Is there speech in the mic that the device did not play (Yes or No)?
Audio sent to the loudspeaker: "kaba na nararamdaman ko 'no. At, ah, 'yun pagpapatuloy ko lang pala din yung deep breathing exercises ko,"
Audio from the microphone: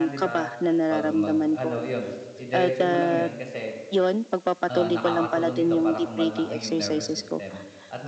Yes